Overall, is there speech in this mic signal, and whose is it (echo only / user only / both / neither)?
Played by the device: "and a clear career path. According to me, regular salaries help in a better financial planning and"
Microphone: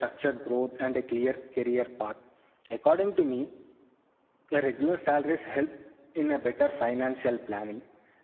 echo only